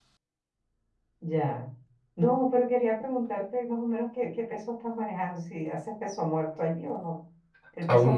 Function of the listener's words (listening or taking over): listening